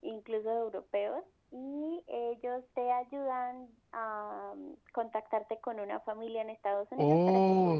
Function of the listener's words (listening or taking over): taking over